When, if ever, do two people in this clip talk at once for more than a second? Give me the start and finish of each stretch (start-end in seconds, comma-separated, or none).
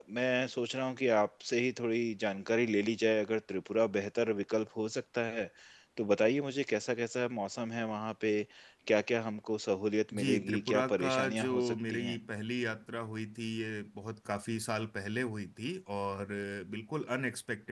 10.2-12.2